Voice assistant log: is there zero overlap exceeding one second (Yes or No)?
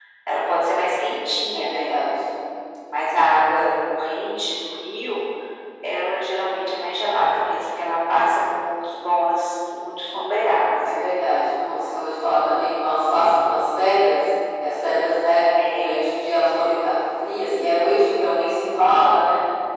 Yes